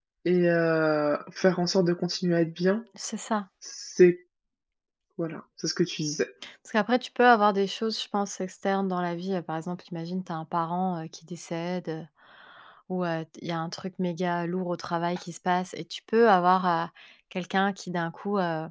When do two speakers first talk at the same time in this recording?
none

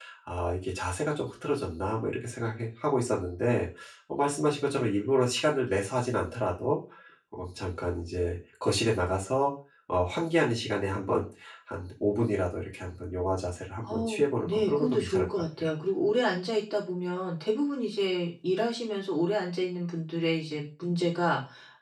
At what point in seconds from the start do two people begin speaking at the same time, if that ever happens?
13.8 s

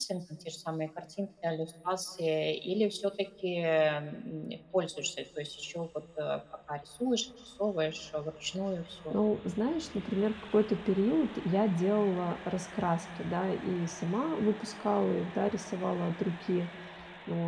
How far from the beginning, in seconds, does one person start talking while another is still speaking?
none

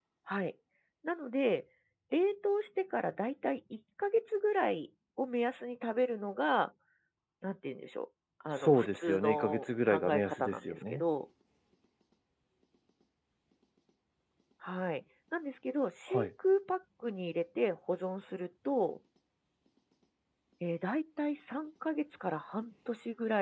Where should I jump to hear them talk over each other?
8.6 s

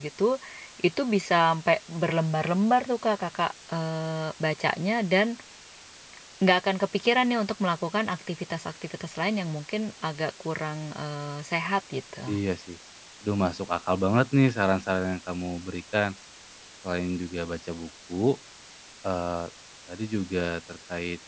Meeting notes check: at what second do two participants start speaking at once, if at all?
none

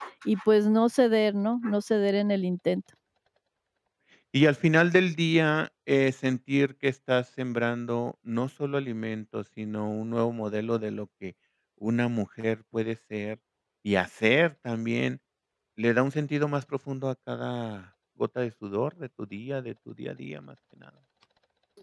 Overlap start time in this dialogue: none

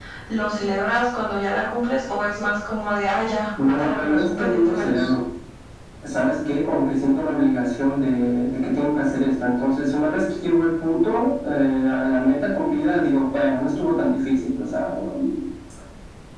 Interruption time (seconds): 3.6 s

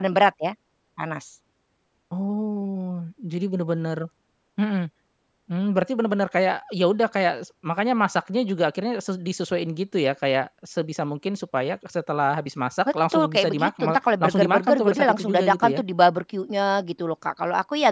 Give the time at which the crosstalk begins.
13.1 s

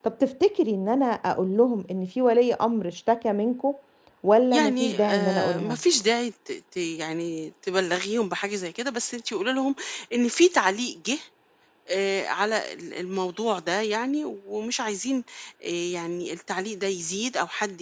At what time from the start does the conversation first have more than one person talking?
4.5 s

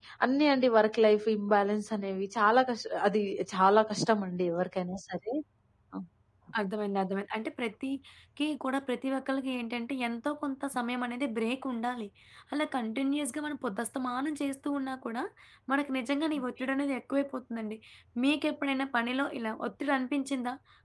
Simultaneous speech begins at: none

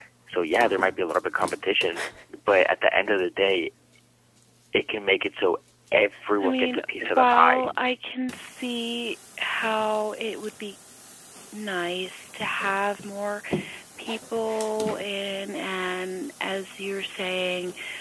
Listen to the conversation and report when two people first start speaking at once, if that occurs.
6.4 s

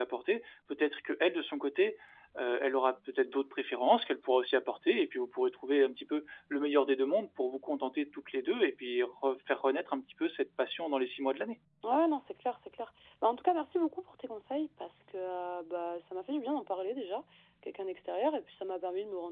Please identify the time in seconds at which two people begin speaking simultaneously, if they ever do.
none

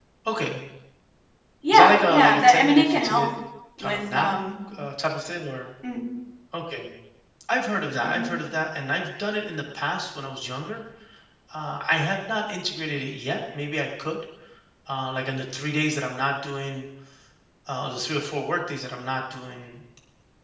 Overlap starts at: 1.7 s

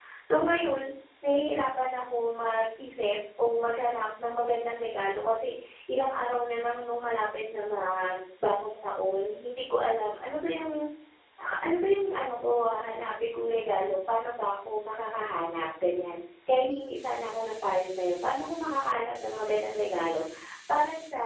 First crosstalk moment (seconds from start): none

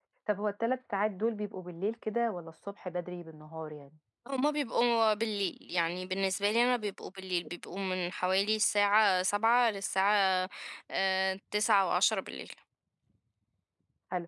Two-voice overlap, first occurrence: none

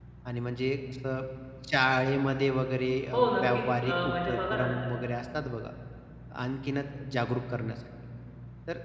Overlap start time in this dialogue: 3.1 s

